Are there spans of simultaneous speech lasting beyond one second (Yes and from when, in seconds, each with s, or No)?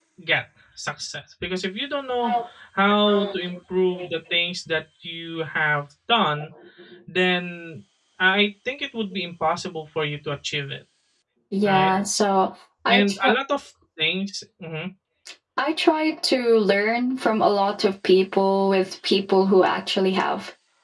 No